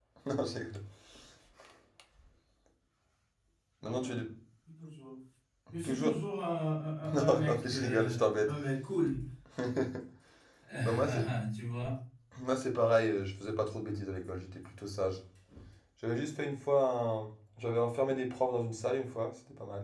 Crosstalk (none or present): present